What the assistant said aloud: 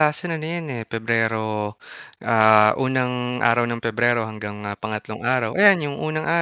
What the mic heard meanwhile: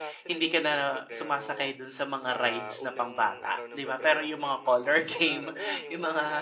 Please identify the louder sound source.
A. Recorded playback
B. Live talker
B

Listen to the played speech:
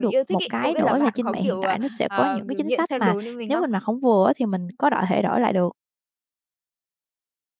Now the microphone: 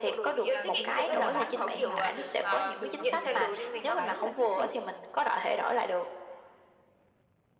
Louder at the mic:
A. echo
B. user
A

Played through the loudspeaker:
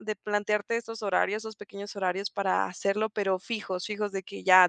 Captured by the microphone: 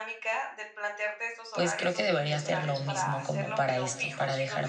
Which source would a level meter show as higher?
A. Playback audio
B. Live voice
B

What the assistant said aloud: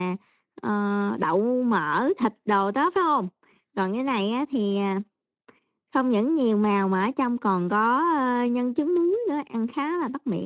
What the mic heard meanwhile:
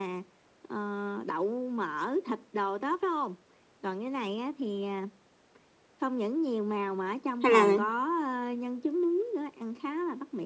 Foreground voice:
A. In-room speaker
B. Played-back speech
A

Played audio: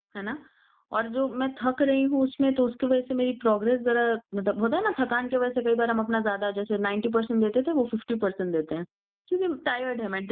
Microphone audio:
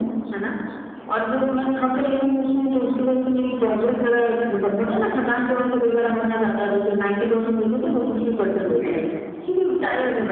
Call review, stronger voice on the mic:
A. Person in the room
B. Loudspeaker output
B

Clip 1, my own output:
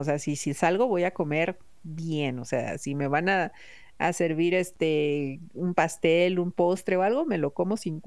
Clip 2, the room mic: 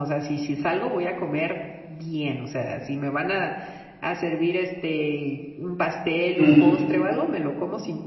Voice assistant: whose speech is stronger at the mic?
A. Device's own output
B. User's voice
B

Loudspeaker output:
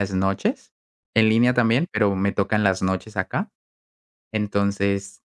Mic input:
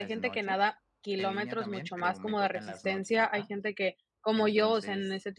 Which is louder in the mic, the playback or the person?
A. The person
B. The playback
A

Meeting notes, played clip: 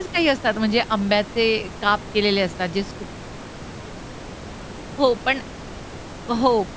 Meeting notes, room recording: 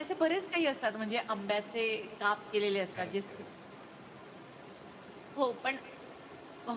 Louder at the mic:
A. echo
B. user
A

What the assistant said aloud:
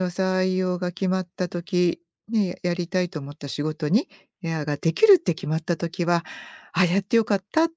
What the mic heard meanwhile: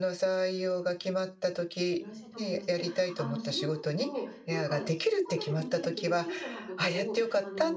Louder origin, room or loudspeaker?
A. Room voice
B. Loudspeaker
B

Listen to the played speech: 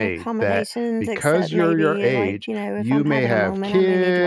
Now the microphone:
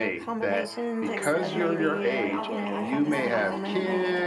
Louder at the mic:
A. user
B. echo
B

